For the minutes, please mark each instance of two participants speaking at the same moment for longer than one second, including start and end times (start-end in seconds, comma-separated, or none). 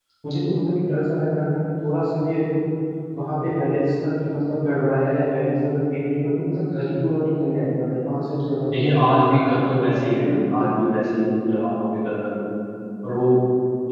8.8-10.3